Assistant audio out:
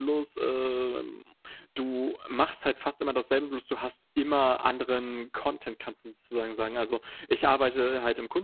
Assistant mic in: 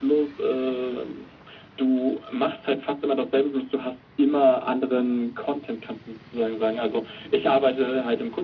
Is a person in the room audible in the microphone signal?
No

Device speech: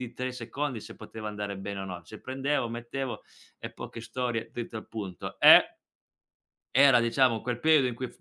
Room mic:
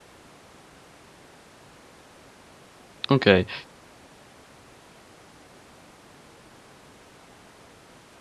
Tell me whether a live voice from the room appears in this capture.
Yes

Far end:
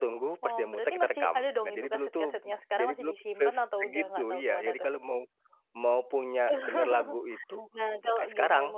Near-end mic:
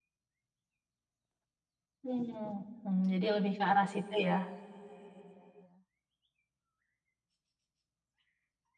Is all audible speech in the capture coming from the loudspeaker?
No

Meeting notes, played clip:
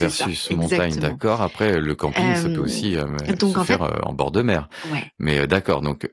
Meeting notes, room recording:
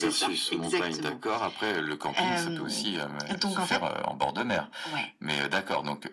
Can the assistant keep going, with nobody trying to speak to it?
Yes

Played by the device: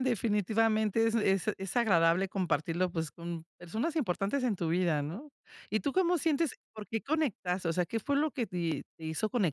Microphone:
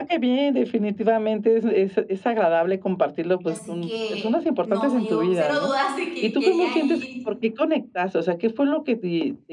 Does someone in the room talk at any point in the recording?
Yes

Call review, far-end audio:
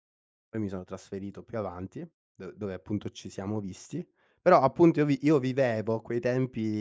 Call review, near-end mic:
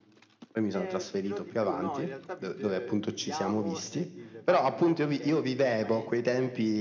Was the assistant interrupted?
Yes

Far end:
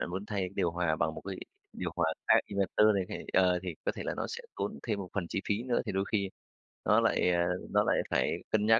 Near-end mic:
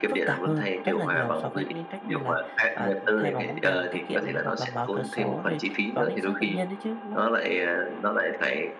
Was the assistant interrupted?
Yes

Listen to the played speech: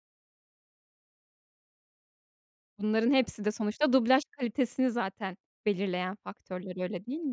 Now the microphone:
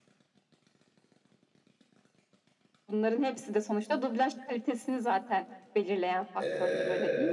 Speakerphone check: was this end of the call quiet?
No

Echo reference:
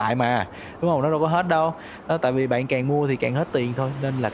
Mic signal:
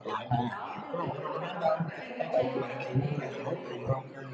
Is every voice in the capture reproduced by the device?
No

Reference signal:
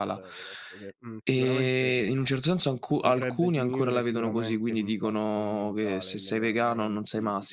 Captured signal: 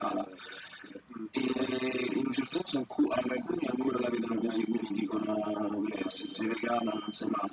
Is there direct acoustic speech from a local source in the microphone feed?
Yes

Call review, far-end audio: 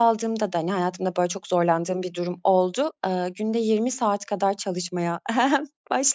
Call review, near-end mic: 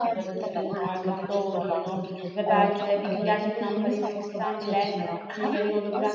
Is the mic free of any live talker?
No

